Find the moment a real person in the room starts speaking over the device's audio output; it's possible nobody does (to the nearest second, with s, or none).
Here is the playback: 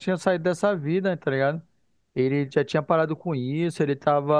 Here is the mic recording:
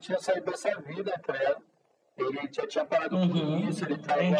3 s